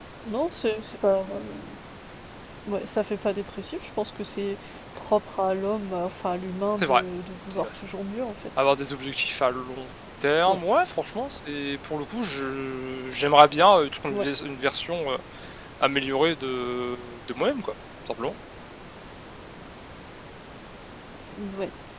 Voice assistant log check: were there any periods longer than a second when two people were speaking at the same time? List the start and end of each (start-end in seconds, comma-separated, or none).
none